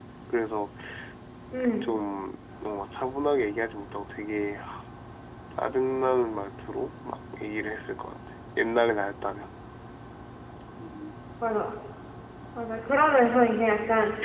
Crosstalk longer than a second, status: none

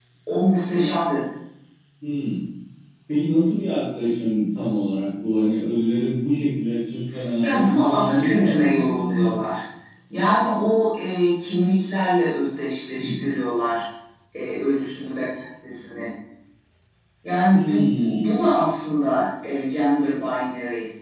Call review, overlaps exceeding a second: present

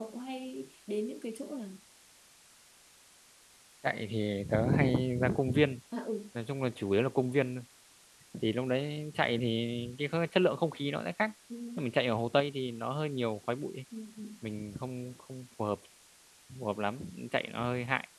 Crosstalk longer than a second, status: none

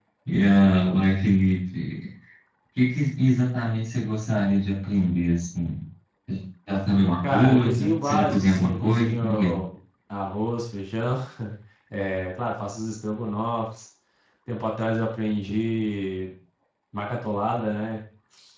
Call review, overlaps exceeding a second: present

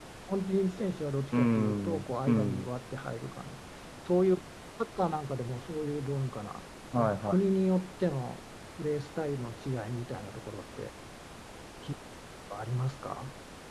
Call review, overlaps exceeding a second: present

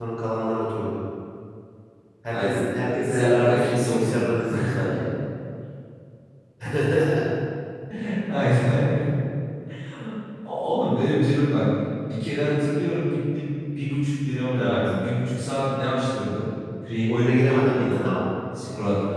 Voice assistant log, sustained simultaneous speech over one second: present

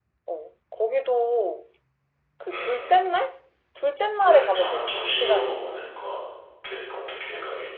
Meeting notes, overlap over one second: present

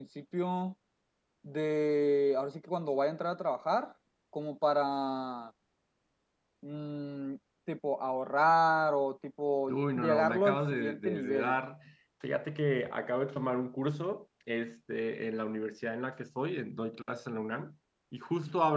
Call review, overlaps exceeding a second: present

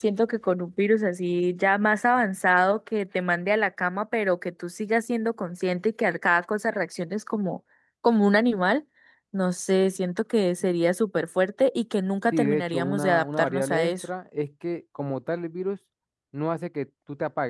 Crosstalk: present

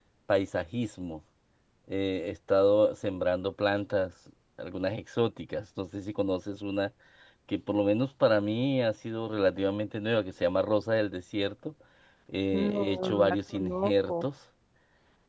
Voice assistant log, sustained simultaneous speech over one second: present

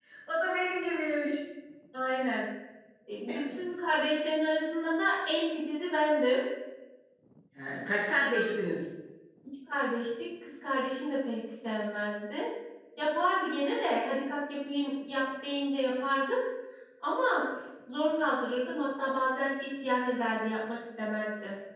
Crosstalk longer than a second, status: none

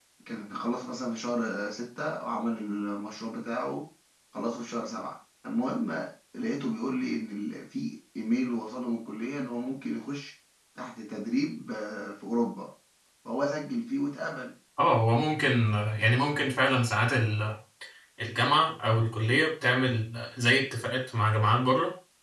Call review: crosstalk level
none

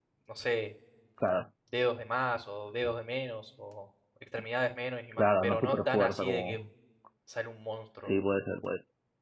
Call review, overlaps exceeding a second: present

